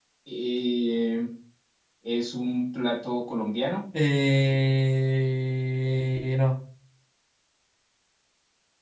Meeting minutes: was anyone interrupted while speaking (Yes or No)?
No